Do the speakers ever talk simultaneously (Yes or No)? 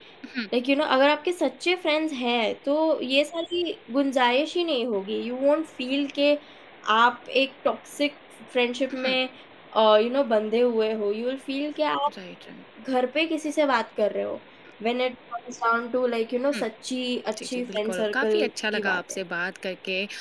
Yes